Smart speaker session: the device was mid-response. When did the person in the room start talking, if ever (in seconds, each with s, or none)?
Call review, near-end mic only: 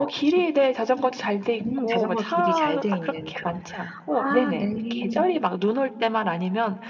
none